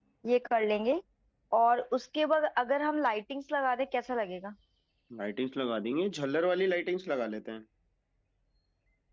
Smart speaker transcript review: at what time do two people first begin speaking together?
none

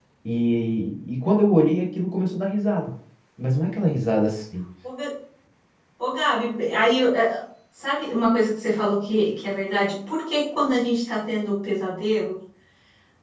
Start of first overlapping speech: none

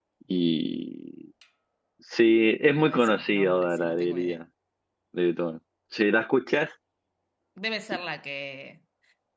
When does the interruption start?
2.9 s

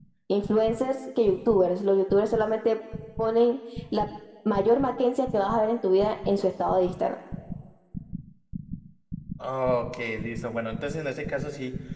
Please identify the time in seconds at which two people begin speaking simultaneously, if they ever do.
none

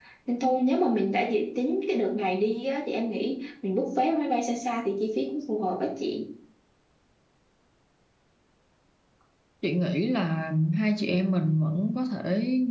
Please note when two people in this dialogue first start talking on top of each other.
none

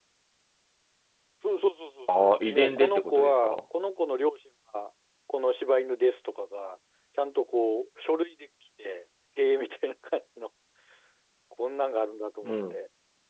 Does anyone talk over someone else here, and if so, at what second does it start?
2.2 s

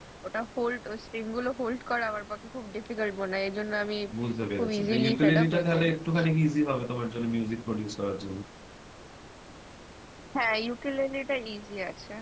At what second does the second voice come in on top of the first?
4.6 s

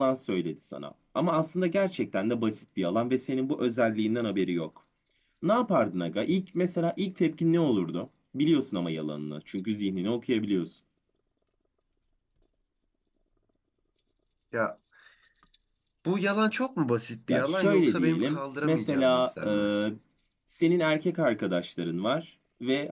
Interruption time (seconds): 17.3 s

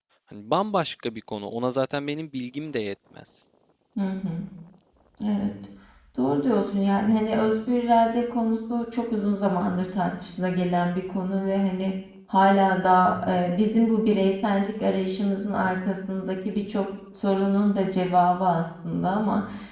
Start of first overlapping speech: none

